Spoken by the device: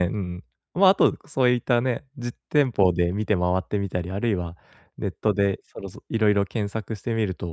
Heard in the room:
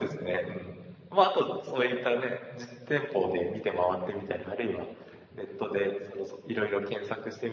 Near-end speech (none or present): none